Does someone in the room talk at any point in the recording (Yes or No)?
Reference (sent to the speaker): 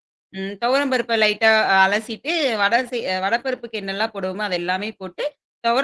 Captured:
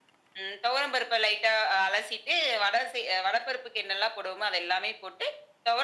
No